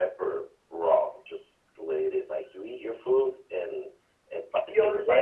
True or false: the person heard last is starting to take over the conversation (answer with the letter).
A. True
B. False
A